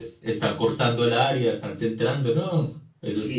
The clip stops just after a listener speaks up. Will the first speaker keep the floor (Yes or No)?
No